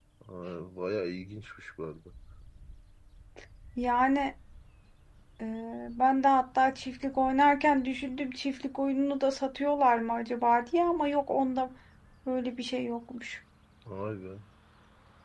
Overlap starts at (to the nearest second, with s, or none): none